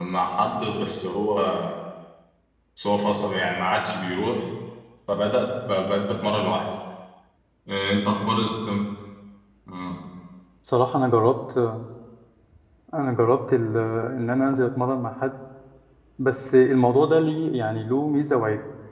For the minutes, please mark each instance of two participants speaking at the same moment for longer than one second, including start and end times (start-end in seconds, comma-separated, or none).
none